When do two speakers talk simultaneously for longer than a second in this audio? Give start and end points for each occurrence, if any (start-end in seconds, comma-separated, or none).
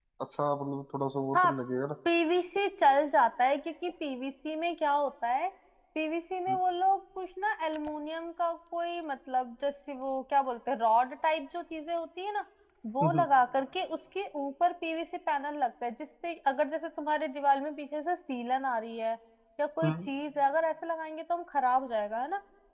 none